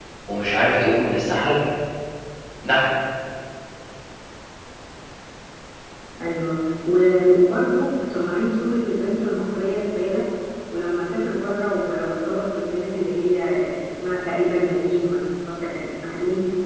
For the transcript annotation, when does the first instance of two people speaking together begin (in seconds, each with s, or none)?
none